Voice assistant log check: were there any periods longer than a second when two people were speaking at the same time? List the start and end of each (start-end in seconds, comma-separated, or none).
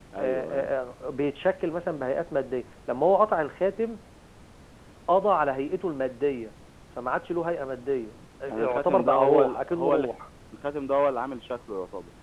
8.5-10.1